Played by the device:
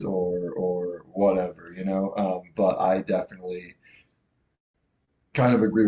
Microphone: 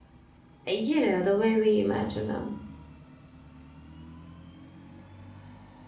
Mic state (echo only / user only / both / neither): user only